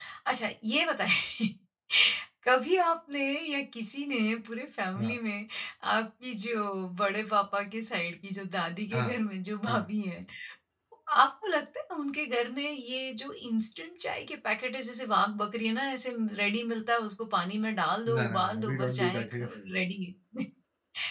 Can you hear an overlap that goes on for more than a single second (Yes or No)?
Yes